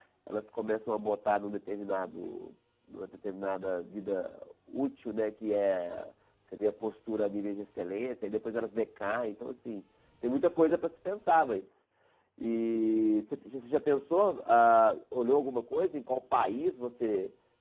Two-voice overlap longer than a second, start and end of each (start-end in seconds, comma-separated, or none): none